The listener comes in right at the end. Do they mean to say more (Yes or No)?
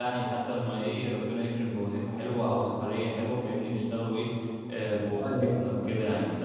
No